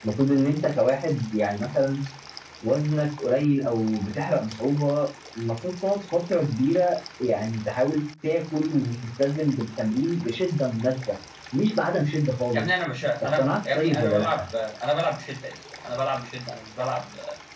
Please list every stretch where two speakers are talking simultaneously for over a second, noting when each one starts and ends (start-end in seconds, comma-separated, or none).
13.2-14.4